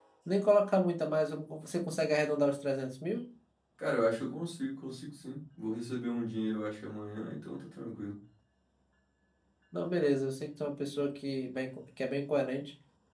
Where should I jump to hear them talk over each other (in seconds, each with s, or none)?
none